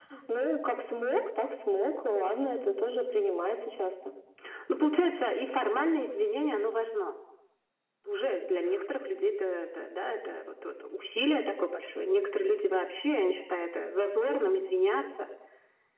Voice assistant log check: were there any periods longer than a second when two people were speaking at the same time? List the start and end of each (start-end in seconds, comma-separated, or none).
none